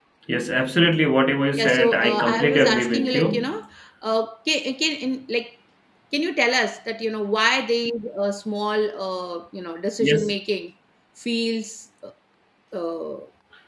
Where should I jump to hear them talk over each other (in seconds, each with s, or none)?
1.5 s